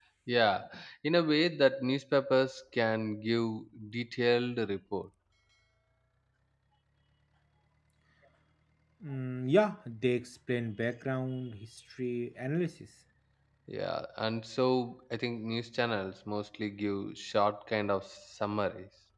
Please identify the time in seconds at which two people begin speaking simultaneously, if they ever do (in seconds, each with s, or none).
none